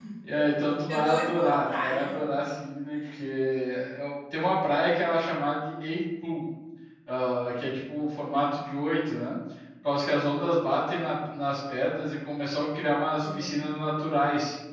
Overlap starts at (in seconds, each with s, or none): 0.9 s